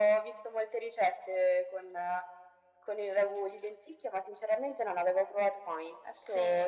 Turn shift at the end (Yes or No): Yes